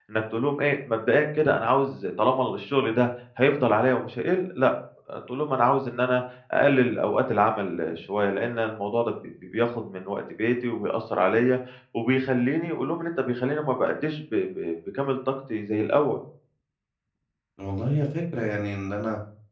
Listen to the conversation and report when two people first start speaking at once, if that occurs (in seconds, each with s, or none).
none